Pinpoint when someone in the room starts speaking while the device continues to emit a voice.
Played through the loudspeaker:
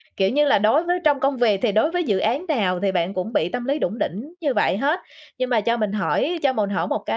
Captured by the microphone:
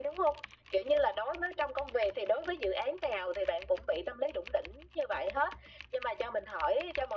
none

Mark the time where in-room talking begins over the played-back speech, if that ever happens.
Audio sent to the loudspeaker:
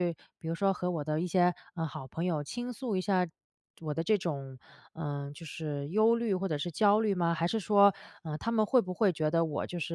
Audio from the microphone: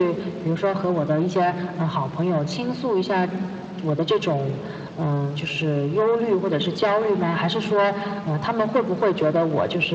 none

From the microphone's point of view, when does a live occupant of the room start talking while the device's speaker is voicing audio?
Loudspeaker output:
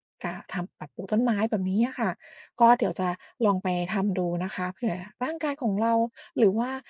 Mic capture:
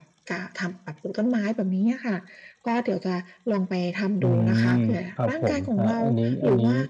4.2 s

